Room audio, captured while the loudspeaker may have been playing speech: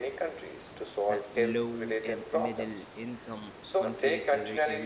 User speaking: Yes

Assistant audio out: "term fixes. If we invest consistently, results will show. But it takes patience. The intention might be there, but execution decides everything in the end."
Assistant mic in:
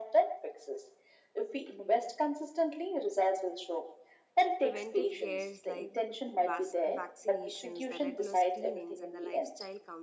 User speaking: Yes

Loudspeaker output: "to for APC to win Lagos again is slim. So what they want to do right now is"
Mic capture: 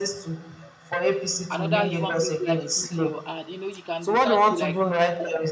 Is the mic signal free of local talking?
No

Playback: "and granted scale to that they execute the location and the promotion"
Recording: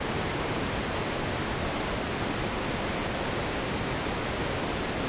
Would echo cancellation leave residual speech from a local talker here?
No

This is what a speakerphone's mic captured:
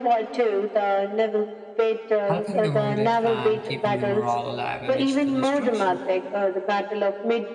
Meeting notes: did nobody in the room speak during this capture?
No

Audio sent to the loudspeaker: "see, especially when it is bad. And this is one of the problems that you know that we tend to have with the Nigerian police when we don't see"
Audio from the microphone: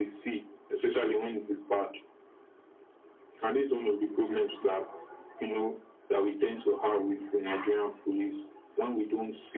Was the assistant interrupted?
No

